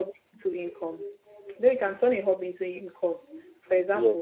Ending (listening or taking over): listening